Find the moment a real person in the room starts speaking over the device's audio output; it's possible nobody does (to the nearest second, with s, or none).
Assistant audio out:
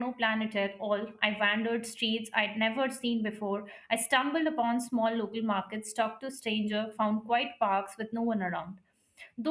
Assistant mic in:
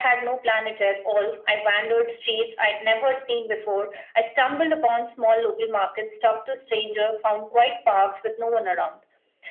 none